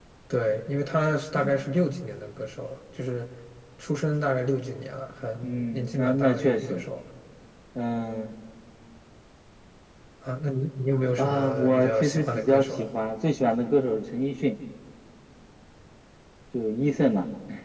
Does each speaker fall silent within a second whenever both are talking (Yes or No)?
No